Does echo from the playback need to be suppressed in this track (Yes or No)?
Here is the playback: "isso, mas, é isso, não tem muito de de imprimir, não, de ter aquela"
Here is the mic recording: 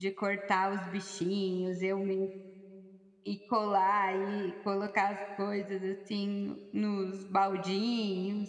No